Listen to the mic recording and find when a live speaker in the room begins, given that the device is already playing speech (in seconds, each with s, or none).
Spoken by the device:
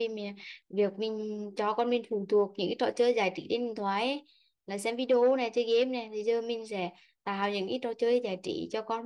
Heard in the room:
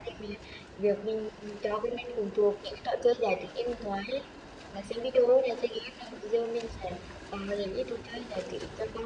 none